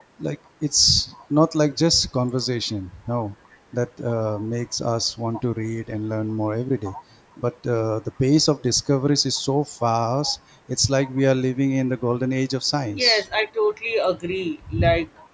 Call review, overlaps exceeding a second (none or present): none